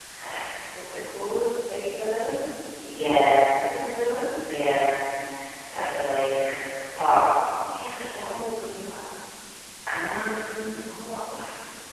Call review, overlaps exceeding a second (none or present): none